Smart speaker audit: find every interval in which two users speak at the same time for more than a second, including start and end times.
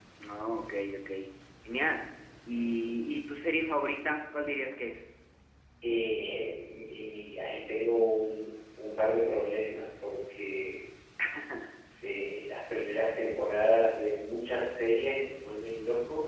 none

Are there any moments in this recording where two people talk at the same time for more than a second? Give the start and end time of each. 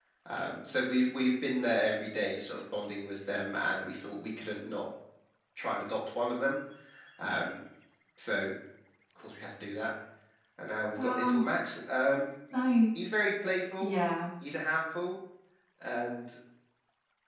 none

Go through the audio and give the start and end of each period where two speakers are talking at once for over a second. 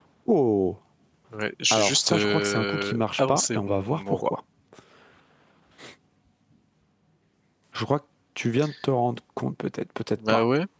1.7-4.3

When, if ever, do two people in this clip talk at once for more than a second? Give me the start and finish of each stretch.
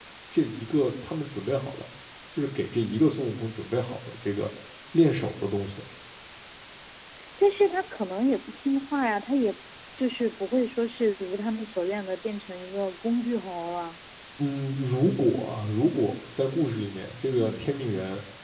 none

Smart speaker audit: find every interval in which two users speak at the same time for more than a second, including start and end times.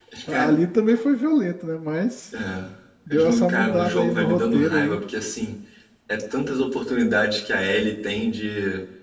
3.1-5.0

